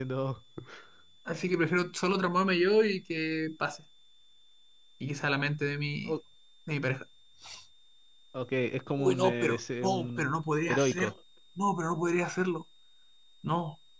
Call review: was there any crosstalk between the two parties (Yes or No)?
Yes